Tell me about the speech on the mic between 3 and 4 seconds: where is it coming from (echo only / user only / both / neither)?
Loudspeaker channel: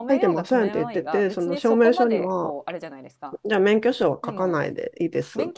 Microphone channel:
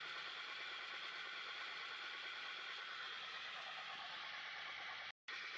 neither